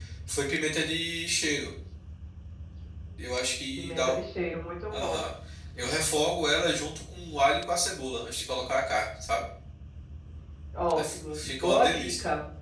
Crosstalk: present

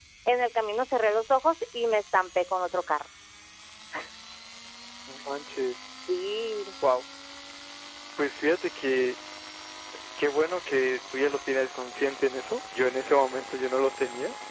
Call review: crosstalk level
none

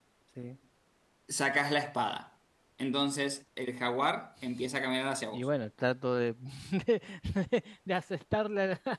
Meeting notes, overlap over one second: none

